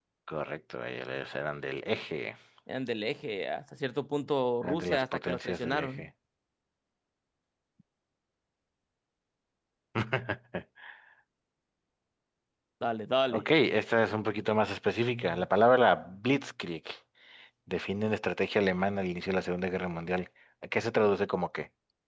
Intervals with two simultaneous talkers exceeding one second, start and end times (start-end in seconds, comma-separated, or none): 4.6-6.1